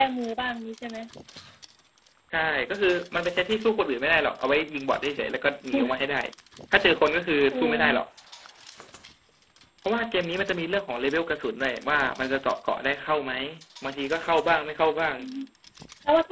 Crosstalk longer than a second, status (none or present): none